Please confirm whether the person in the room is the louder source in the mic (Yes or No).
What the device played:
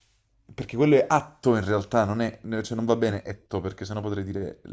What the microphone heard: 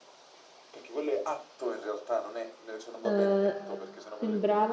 Yes